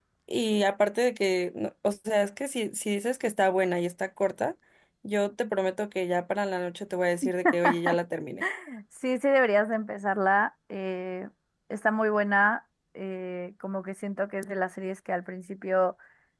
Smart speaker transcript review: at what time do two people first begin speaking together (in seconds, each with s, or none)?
none